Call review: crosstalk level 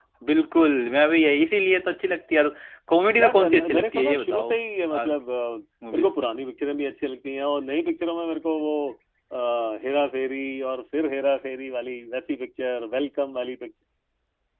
present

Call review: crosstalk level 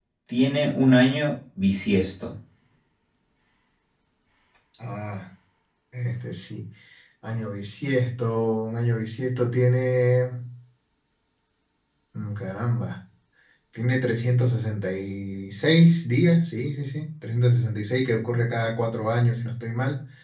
none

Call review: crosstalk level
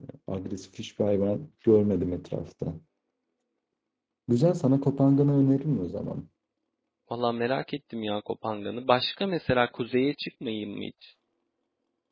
none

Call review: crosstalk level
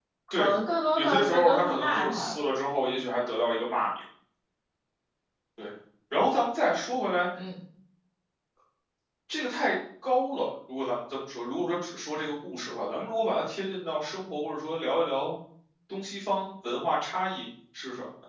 present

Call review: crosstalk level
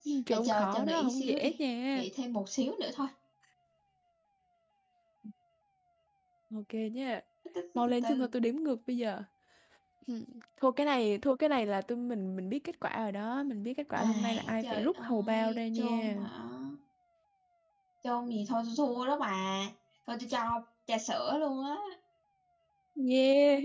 present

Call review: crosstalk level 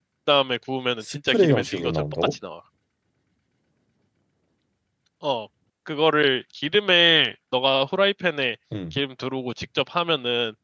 present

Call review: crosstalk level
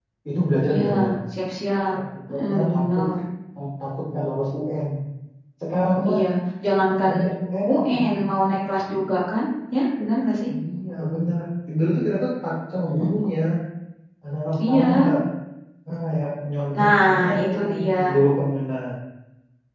present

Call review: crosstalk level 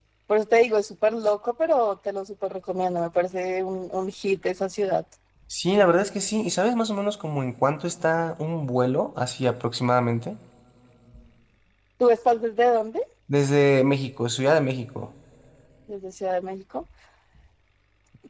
none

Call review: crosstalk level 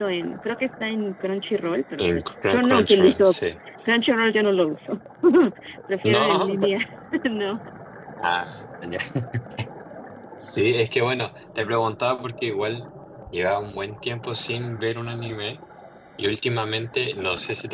present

